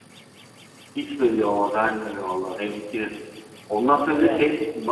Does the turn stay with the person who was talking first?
Yes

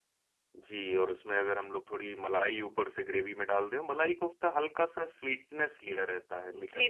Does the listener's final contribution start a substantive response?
Yes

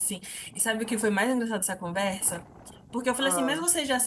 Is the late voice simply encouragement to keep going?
Yes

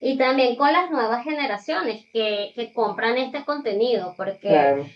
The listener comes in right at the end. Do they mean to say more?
No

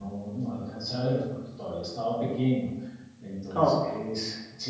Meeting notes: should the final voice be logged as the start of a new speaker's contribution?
No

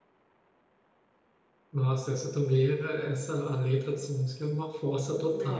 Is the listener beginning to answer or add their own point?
Yes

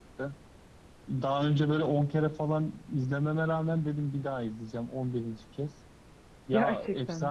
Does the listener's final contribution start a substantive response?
No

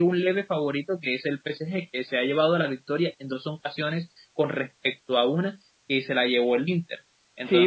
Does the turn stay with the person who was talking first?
No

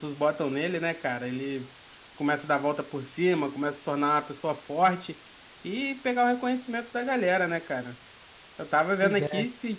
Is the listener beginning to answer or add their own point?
No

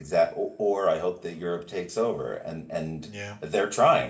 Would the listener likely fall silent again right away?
Yes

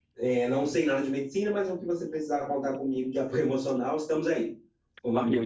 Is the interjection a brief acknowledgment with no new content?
No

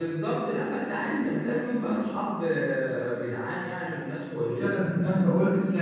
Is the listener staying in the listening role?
No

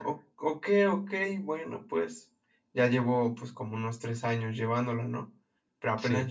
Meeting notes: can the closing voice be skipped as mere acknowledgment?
Yes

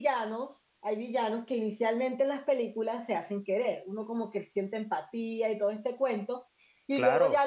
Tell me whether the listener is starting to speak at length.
No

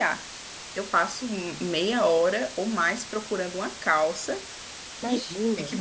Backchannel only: Yes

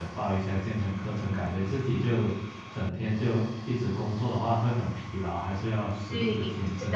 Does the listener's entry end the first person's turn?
Yes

